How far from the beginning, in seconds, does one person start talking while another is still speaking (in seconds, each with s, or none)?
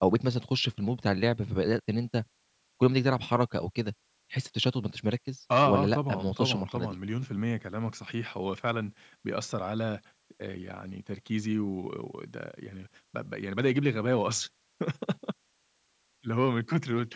5.5 s